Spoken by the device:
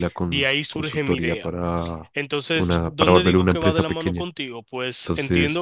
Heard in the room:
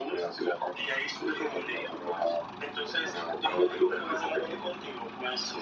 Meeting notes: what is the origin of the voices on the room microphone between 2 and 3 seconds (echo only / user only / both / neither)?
echo only